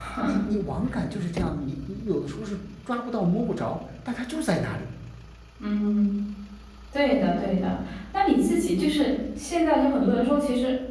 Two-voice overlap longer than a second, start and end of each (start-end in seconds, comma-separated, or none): none